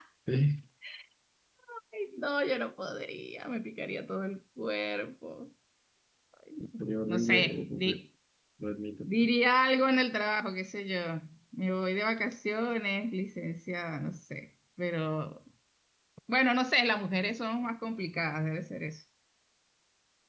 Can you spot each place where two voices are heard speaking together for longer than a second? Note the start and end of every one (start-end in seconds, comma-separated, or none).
6.6-8.0